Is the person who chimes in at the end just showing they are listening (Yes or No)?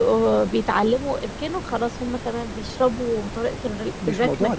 No